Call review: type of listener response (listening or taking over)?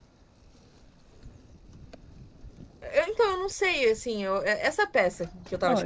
taking over